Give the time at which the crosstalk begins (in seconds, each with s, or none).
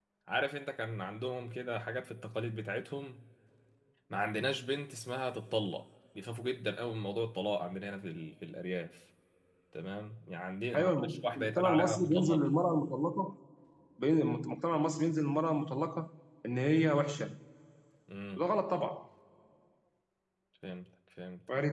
10.7 s